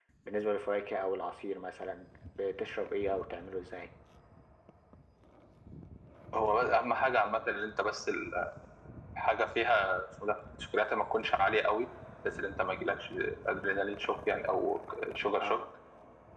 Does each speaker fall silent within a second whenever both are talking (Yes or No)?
Yes